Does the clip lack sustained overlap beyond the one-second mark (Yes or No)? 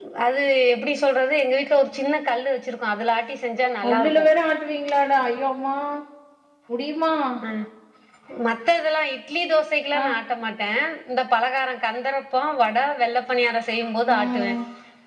Yes